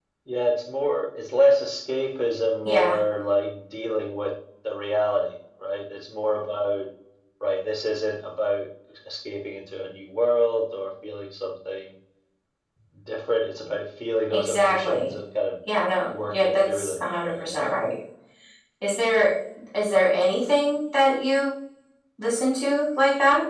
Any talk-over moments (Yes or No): Yes